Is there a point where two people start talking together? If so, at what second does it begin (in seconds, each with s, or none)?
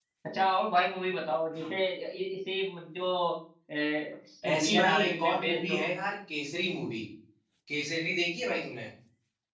4.5 s